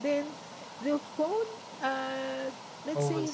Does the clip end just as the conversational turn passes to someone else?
No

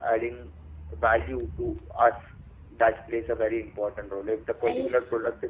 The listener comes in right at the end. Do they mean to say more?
No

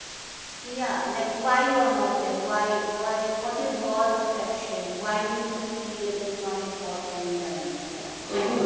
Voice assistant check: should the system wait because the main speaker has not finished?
No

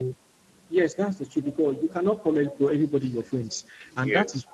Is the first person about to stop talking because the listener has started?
No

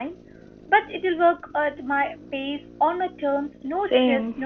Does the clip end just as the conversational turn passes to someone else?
Yes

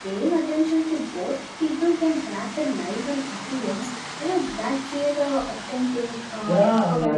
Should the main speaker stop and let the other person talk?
Yes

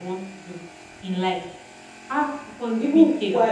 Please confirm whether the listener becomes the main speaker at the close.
Yes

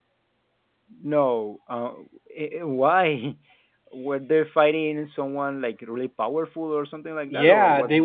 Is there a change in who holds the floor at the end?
Yes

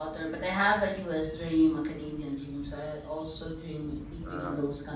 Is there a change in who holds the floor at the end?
No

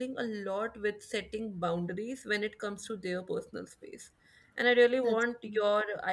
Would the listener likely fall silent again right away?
Yes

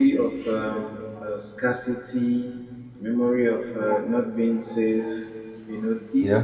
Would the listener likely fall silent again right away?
Yes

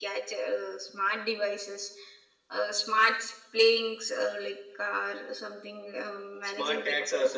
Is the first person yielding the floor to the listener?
Yes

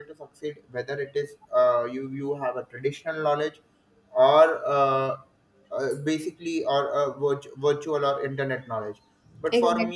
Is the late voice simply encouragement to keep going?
Yes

